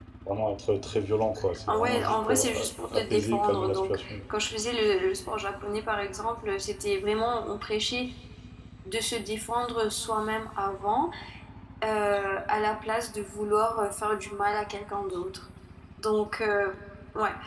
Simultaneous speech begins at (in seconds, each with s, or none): 1.7 s